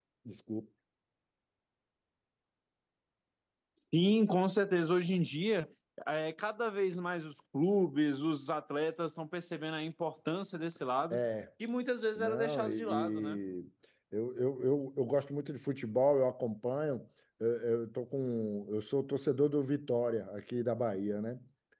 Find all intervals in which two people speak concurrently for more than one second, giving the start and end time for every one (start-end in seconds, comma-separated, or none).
12.2-13.4